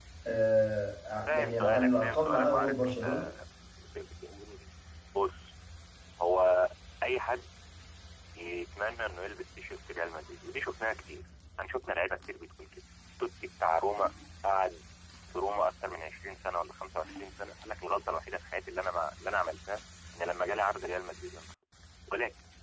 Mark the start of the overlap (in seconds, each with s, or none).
1.3 s